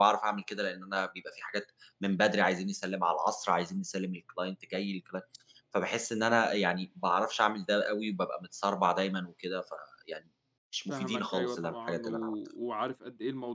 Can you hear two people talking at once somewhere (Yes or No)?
Yes